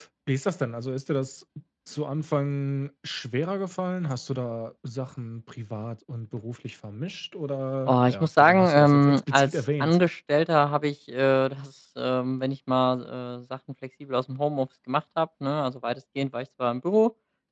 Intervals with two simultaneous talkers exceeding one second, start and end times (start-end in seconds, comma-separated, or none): 7.9-10.0